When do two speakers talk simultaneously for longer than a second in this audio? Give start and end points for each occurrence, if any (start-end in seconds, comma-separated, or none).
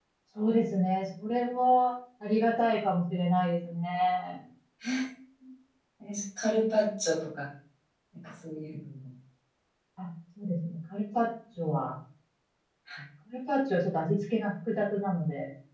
none